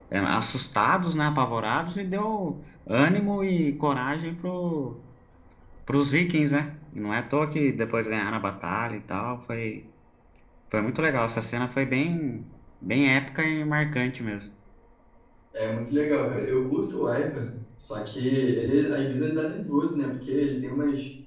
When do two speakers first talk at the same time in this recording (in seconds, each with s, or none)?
none